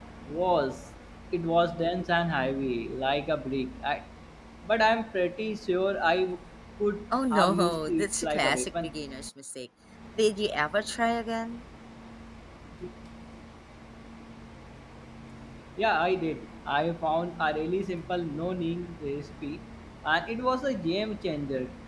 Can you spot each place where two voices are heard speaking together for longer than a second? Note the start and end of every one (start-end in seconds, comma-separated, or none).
7.3-8.9